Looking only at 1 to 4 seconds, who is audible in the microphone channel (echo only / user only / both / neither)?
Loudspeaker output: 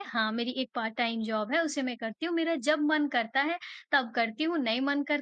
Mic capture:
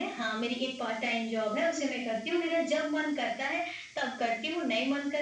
echo only